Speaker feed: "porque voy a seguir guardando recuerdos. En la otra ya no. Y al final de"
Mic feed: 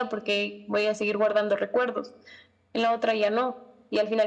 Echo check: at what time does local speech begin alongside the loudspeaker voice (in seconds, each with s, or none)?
none